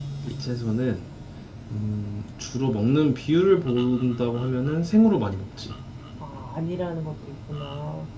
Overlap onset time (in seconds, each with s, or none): none